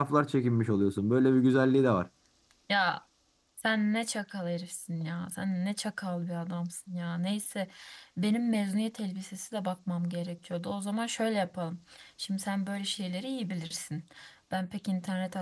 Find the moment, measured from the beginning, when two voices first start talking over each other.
none

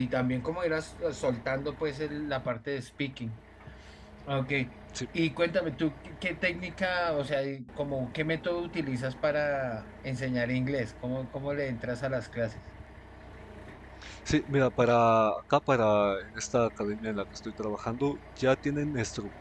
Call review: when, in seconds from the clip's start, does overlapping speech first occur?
none

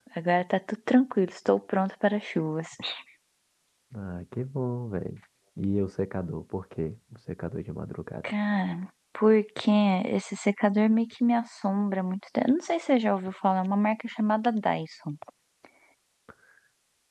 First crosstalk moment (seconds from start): none

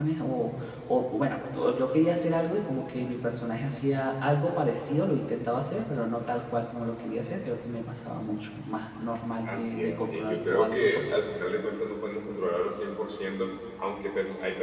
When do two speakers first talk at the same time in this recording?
9.4 s

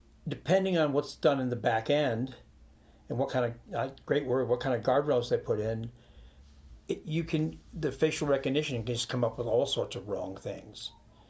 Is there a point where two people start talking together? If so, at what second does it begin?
none

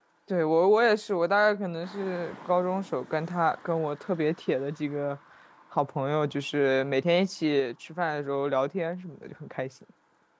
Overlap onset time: none

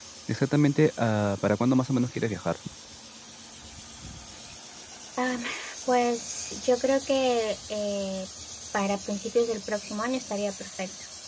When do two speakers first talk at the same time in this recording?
none

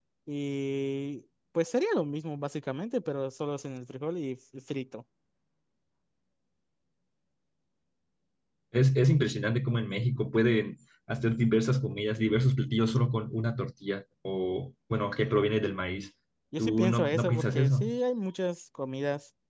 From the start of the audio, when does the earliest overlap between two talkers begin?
16.6 s

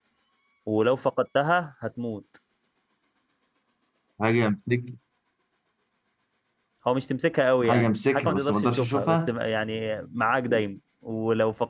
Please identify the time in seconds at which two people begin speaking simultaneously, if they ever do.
7.6 s

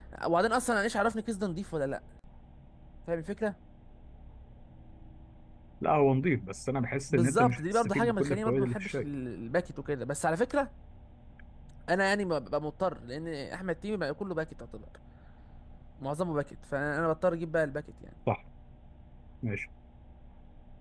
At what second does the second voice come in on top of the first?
7.1 s

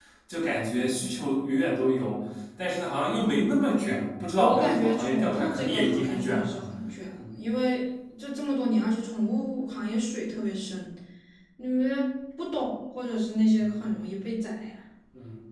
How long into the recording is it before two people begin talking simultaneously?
4.4 s

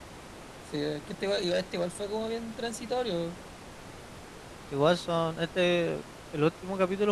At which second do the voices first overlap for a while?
none

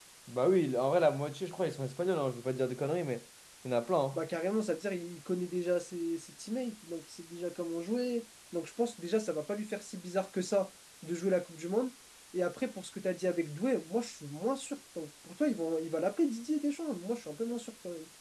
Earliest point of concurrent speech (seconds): none

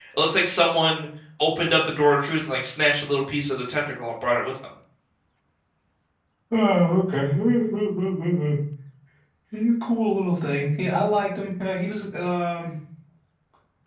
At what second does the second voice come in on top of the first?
none

